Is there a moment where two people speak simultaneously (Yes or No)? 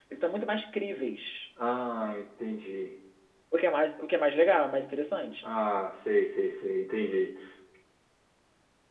No